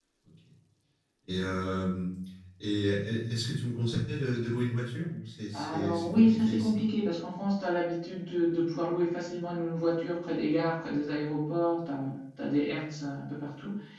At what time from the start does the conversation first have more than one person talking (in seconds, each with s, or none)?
5.5 s